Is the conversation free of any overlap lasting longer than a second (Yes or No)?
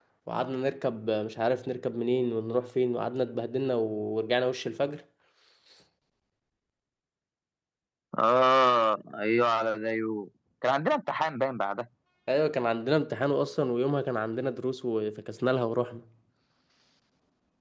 Yes